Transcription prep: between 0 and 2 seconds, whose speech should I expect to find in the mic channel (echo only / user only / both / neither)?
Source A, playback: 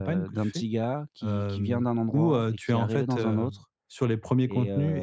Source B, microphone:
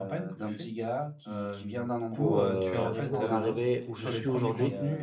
echo only